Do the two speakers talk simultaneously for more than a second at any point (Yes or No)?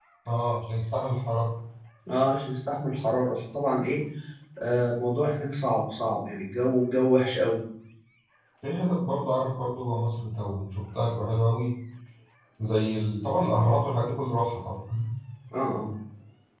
No